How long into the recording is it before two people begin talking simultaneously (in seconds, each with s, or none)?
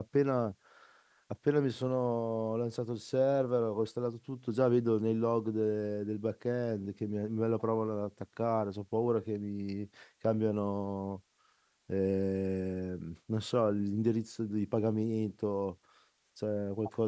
none